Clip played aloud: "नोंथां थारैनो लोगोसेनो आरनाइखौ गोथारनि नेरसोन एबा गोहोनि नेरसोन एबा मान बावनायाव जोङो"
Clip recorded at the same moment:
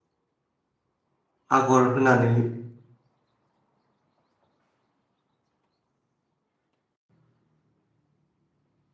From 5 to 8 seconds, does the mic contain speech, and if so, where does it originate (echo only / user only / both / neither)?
neither